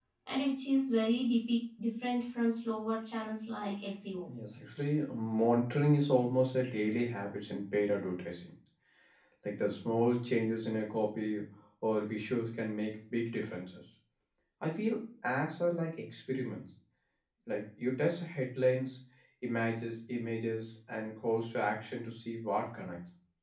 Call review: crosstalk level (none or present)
none